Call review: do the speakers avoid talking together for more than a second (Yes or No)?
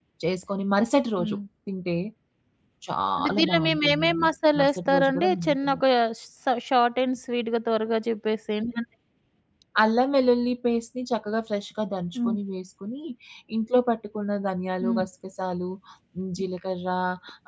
No